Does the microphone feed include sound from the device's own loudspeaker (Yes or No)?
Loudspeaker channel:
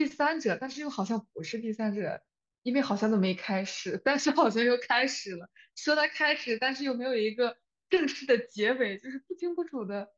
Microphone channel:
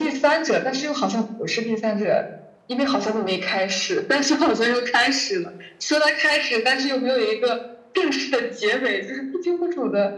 Yes